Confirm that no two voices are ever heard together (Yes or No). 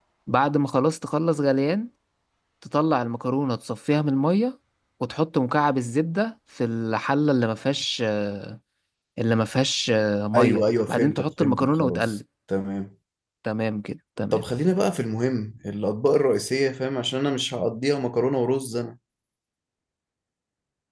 No